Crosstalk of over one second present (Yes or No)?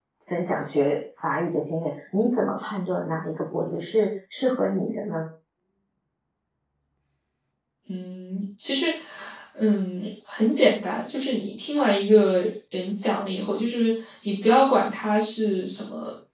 No